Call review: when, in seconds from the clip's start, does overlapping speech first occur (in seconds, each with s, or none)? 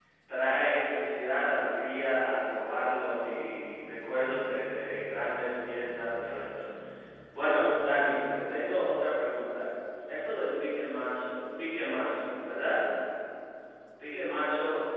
none